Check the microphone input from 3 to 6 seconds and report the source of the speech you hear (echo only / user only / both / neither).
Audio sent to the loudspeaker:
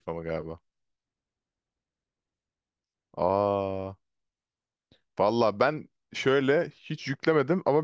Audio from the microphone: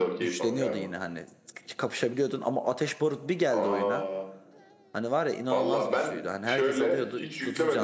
both